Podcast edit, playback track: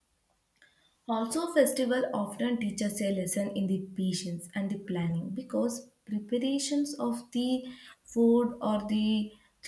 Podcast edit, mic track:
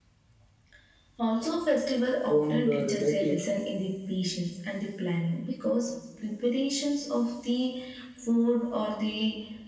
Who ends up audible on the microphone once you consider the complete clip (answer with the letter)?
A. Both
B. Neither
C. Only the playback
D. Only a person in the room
A